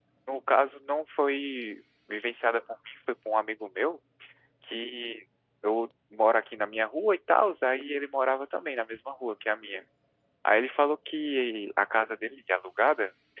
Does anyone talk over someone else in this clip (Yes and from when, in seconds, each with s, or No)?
No